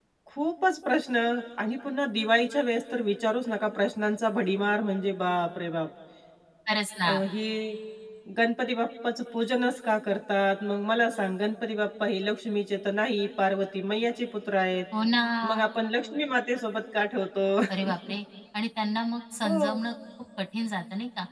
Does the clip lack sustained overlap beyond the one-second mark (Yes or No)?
Yes